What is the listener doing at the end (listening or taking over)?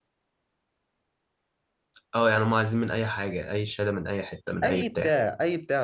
taking over